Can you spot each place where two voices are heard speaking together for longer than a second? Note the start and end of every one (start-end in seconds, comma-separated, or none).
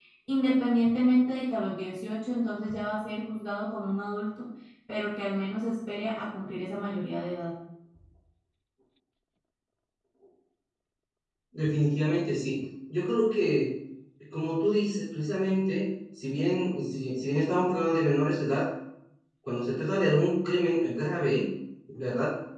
none